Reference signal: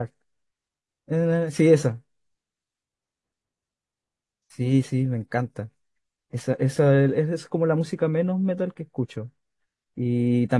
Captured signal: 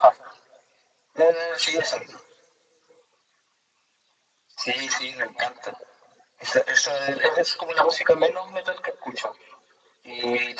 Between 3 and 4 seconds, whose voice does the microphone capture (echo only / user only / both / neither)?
neither